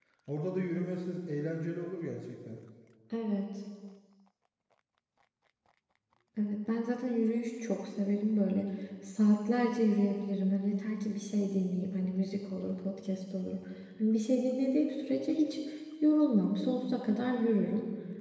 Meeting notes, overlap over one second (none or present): none